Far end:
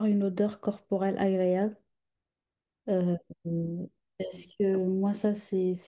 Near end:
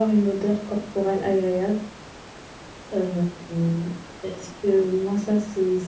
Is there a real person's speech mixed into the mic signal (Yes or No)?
No